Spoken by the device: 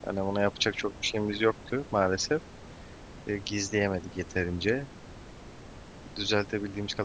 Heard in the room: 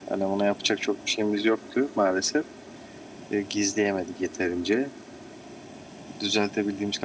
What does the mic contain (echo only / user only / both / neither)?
echo only